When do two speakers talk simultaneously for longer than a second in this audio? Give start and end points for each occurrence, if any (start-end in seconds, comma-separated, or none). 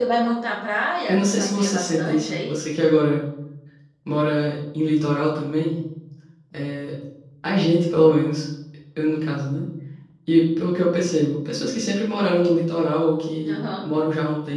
1.1-2.6